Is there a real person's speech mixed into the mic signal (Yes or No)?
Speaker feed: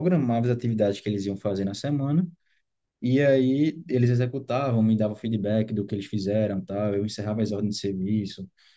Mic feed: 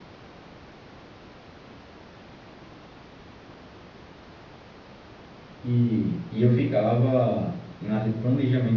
Yes